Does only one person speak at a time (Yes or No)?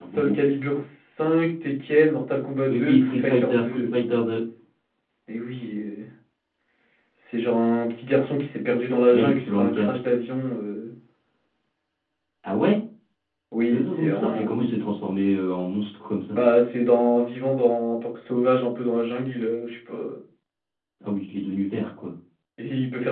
No